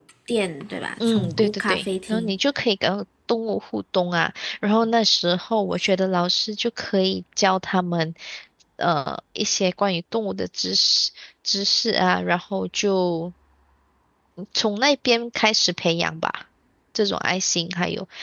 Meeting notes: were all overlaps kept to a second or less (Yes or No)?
No